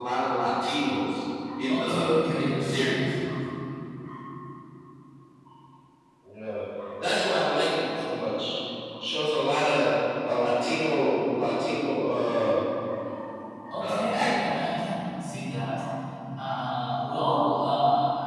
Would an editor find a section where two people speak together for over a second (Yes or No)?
Yes